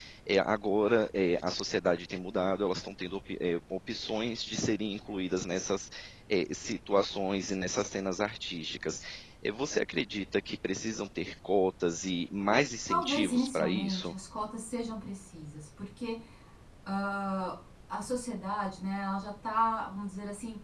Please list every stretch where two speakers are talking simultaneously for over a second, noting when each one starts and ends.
12.9-14.1

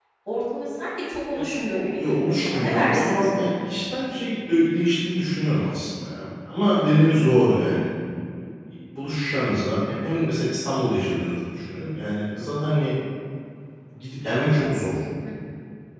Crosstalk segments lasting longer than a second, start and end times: 1.3-3.2

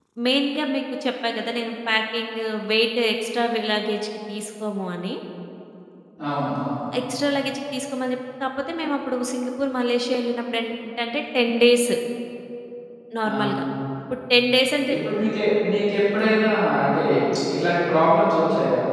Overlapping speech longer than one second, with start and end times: none

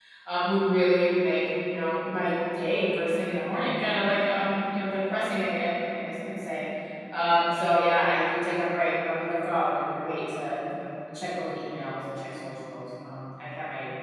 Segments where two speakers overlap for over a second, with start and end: none

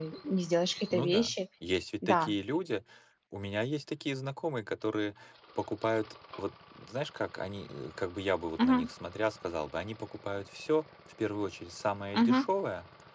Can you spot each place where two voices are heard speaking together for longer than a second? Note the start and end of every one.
none

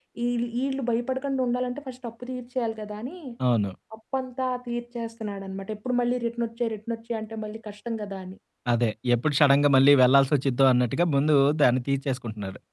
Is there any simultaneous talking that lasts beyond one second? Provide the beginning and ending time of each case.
none

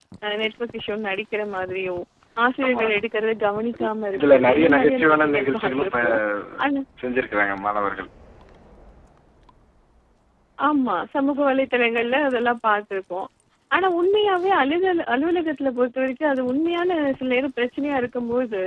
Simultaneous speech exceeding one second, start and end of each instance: 4.1-5.9

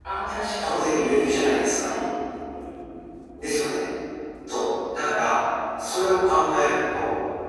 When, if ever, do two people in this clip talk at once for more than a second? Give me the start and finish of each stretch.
none

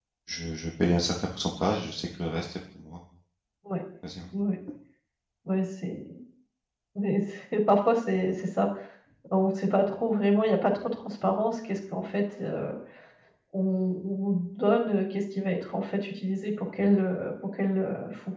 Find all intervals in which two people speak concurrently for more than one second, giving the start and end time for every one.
none

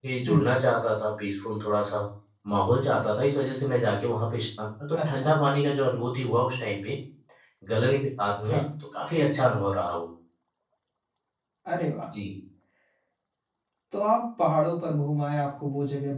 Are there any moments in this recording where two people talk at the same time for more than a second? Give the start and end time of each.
none

